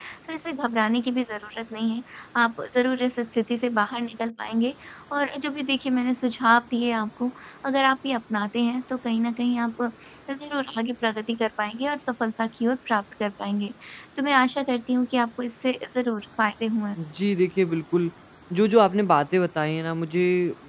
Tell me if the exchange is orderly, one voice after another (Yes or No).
Yes